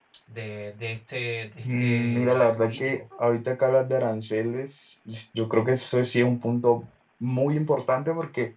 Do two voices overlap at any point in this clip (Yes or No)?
Yes